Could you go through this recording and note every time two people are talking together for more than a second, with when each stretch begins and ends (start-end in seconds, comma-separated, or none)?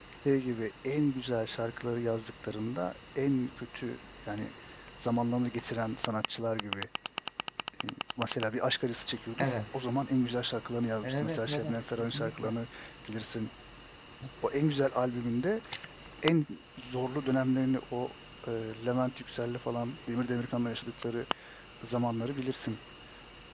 11.0-12.5